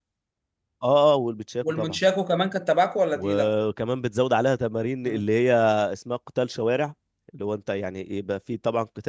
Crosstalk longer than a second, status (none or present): none